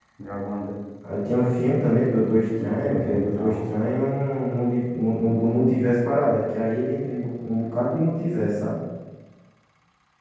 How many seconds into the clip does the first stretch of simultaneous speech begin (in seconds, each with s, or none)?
2.2 s